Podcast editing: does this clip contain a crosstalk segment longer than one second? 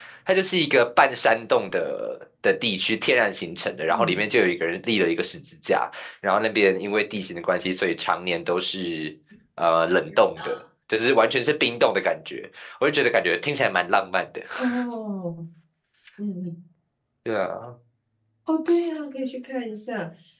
No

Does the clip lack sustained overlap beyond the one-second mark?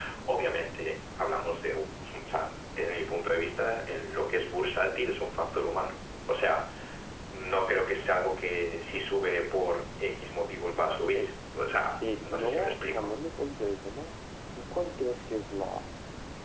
No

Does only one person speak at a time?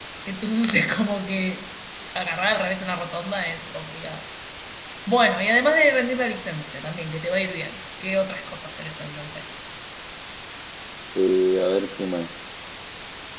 Yes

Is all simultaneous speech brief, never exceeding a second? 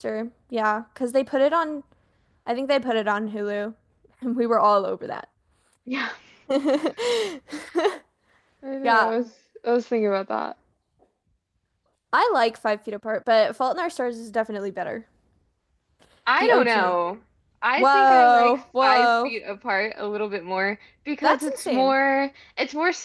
No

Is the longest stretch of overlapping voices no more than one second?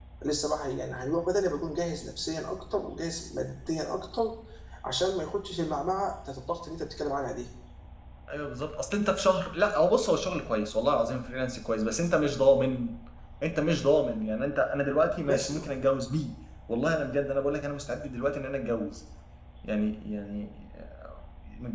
Yes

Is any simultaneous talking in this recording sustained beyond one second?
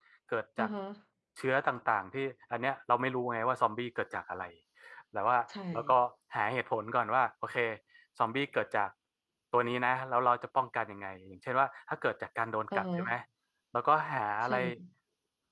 No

